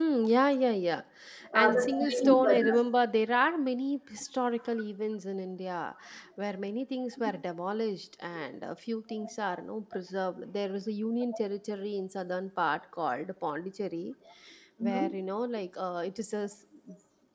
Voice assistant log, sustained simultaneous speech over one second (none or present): present